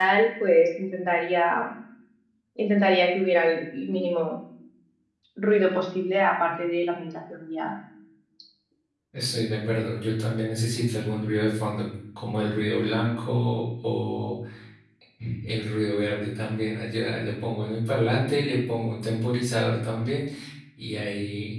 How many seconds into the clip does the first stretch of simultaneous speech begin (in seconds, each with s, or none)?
none